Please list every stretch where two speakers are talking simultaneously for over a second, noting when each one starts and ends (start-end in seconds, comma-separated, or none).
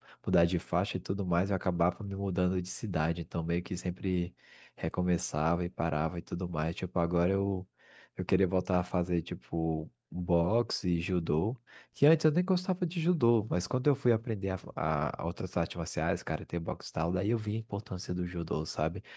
none